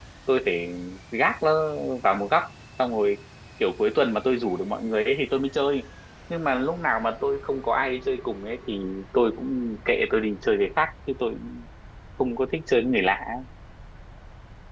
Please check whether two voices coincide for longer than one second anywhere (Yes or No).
No